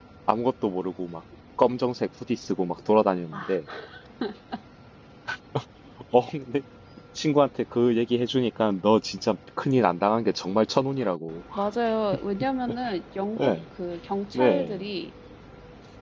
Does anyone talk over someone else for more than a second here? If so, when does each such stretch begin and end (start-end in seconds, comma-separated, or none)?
none